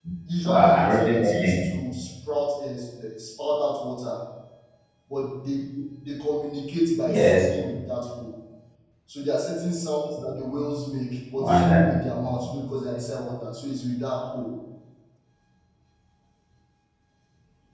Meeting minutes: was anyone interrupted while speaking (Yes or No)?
Yes